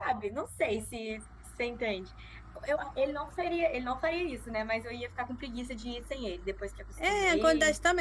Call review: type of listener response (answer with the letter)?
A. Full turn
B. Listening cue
A